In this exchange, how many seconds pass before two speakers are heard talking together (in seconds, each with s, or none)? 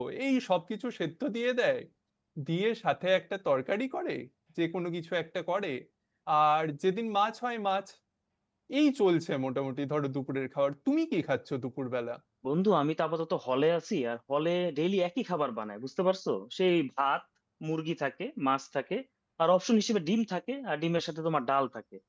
none